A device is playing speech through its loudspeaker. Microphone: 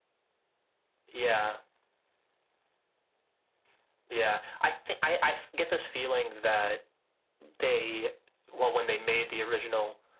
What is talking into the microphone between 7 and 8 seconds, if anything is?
echo only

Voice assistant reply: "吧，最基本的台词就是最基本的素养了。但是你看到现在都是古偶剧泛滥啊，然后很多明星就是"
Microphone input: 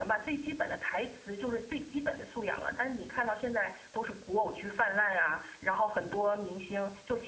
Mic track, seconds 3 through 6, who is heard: echo only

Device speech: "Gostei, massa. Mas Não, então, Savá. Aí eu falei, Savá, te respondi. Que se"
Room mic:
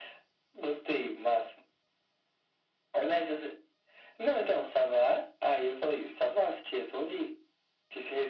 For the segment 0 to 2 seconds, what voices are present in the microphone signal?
echo only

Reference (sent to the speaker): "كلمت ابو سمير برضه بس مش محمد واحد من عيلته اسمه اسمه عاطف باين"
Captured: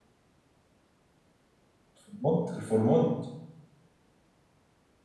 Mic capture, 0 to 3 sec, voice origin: user only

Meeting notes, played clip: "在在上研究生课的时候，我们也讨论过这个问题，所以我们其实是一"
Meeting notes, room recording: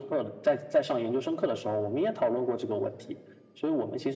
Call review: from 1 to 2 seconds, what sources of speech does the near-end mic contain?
echo only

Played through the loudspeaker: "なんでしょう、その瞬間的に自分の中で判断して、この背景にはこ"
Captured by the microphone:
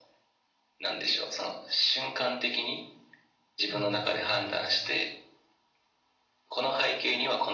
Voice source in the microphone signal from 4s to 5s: both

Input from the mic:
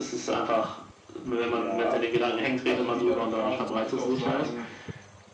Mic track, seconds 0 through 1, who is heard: echo only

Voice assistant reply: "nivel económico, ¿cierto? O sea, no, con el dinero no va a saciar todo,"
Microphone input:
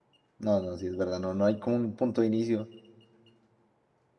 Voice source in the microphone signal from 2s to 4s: user only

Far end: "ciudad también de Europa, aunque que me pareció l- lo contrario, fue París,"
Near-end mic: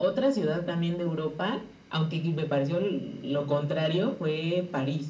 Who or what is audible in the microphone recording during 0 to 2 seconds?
echo only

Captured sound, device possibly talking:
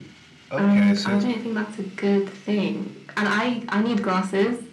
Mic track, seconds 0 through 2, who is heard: both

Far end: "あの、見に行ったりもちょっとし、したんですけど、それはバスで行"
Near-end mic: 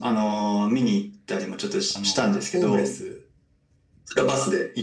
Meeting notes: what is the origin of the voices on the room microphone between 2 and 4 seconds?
both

